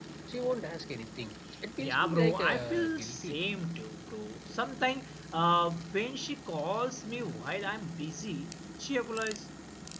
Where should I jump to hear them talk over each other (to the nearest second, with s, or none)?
2 s